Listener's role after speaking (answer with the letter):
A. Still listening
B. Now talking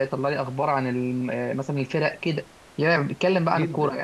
B